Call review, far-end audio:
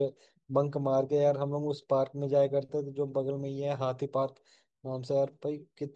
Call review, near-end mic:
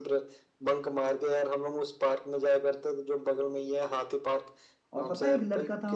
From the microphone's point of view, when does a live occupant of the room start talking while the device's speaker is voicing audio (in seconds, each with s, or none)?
5.0 s